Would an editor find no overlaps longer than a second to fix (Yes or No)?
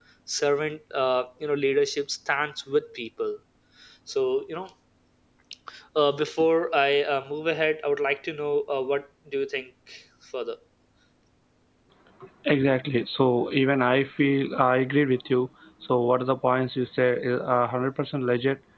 Yes